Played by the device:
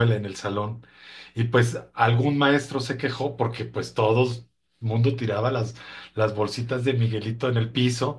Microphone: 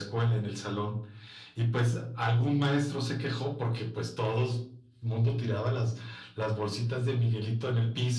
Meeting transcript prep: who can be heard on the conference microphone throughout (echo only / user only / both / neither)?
echo only